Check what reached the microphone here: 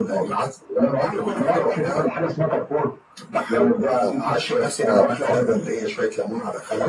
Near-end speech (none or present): present